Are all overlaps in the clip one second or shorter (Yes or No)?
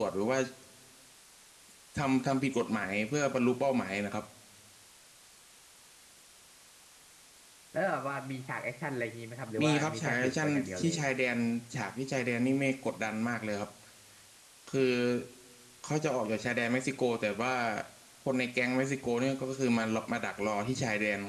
No